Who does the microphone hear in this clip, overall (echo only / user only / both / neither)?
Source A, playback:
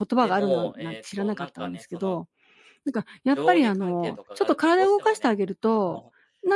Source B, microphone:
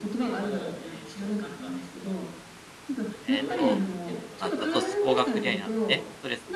both